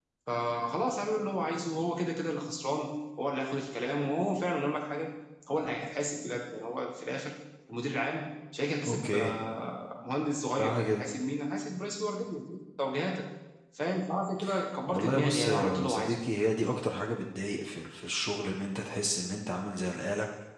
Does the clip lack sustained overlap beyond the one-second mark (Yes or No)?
No